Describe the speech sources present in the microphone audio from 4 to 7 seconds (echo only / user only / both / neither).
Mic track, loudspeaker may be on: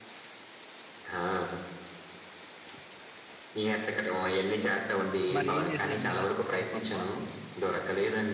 both